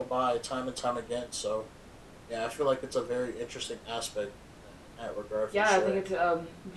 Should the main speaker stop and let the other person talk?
Yes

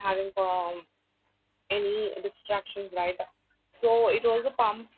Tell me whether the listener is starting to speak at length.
No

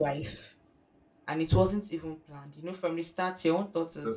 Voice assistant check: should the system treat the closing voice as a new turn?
Yes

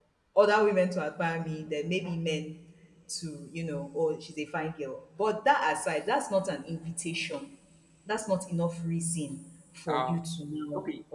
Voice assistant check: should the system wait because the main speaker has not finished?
No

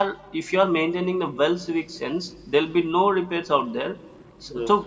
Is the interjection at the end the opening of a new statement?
No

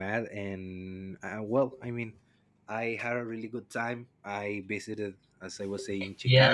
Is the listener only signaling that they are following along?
No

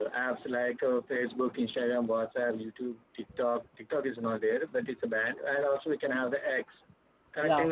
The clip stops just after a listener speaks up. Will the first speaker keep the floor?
Yes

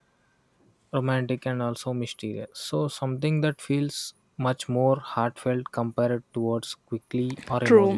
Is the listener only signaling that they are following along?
No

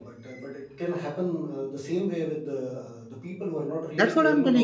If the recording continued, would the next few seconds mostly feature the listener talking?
Yes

